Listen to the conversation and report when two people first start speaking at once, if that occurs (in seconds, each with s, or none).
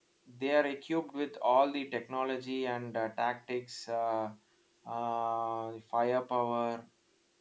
none